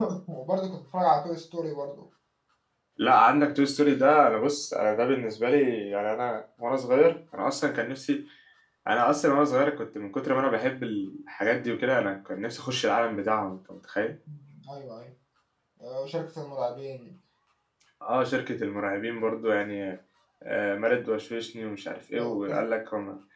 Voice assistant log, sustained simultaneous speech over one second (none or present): none